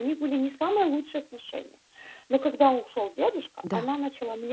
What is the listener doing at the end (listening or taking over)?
listening